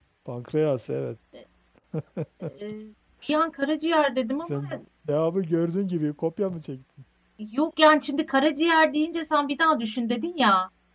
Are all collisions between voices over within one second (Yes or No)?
Yes